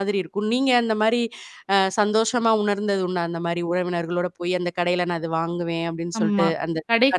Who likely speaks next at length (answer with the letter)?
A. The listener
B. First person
A